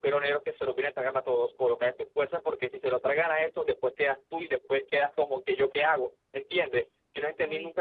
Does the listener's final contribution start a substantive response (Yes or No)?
No